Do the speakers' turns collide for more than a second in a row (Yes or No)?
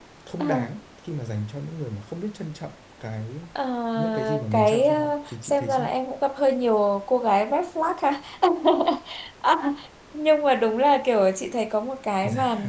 Yes